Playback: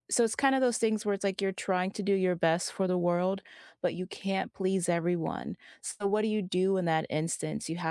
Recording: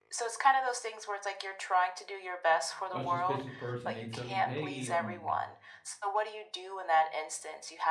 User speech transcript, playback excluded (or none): a suspicious person, they tell you, "Hey, um,